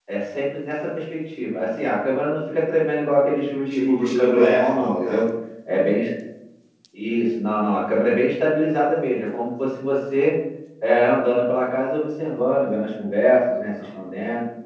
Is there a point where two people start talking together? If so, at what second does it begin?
4 s

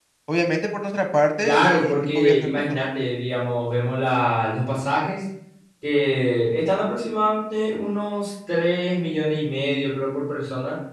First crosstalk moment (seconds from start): 1 s

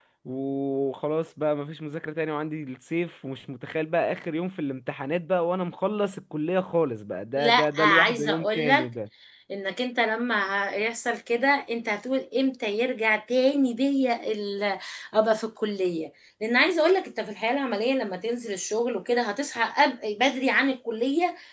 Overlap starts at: 7 s

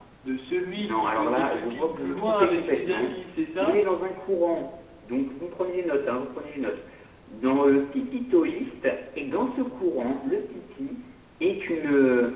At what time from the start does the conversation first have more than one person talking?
1 s

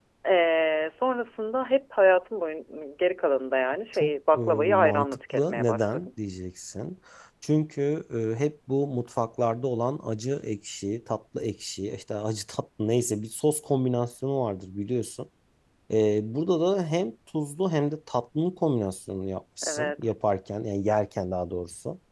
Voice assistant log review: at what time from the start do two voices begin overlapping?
4 s

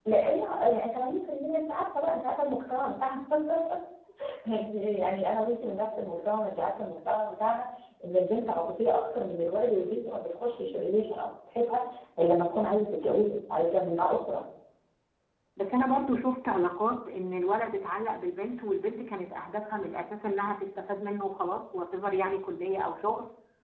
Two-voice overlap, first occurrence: none

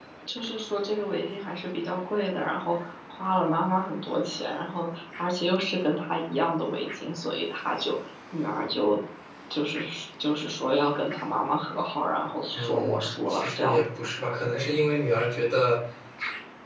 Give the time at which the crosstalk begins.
13 s

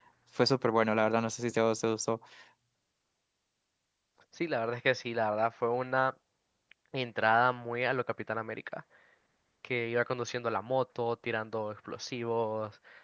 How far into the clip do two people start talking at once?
none

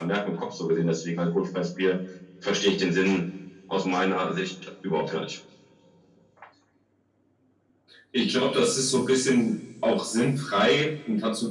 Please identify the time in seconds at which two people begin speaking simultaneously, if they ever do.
none

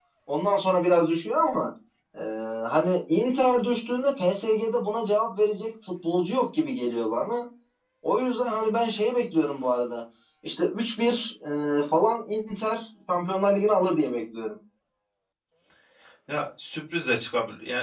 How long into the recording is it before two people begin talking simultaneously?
none

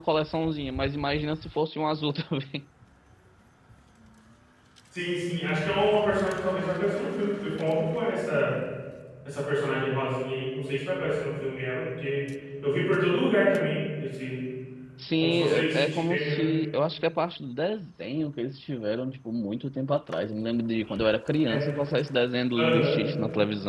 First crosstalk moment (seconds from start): 15 s

